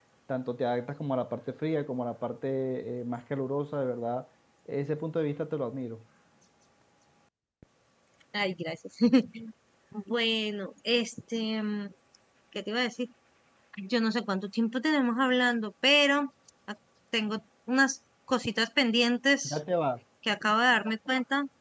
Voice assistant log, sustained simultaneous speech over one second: none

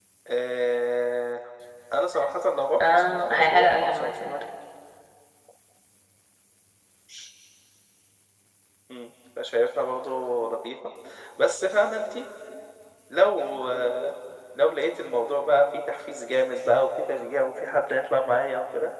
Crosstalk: present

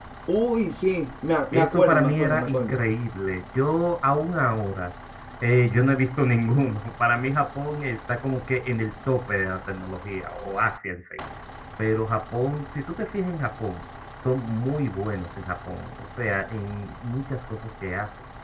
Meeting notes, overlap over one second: present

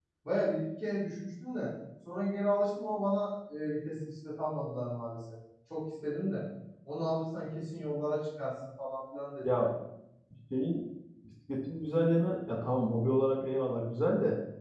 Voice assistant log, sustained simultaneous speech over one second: none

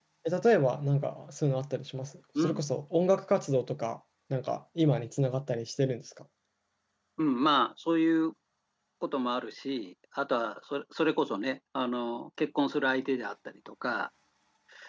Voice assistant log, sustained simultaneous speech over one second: none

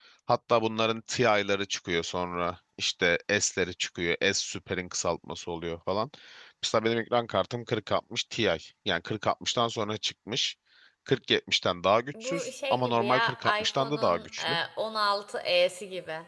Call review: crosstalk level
present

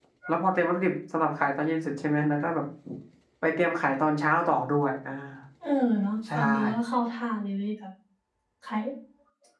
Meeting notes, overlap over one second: none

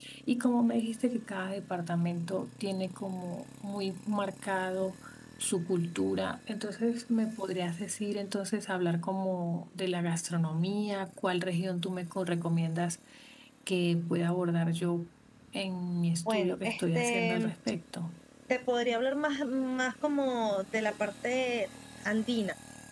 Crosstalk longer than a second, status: present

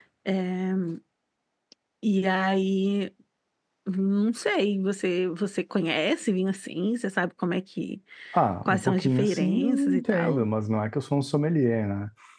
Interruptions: present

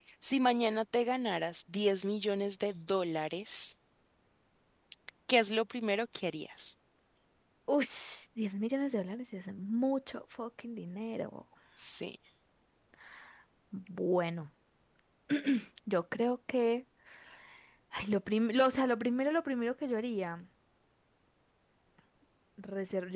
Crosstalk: none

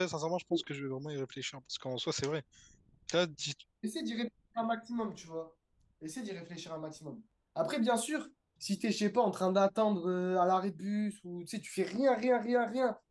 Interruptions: none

